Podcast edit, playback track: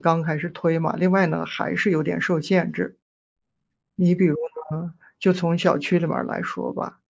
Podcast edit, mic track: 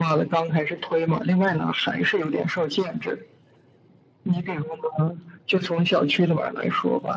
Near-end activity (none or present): none